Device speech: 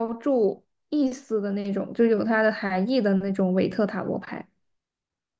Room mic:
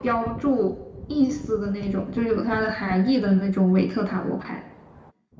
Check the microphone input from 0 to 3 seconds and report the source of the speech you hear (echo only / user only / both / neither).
echo only